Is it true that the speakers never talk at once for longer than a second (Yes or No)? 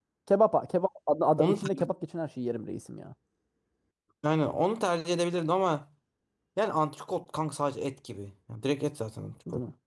Yes